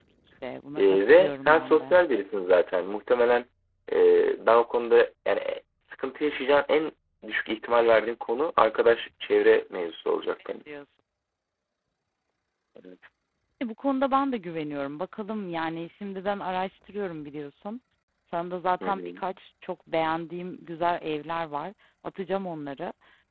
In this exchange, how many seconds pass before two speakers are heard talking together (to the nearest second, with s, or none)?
1 s